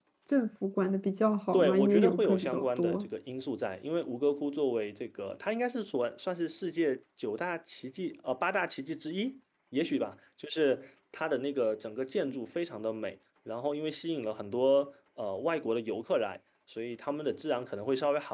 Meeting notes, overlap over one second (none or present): present